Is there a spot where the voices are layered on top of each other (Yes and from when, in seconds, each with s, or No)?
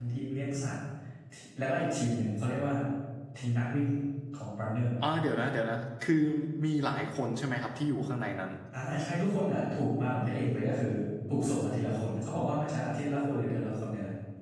No